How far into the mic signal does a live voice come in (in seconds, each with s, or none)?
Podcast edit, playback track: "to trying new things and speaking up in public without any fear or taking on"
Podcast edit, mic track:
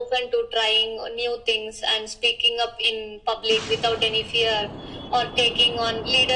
none